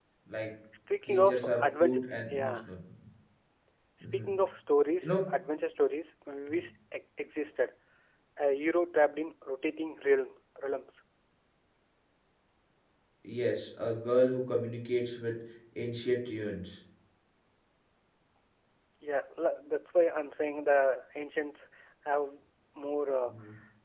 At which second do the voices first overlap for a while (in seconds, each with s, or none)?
1.1 s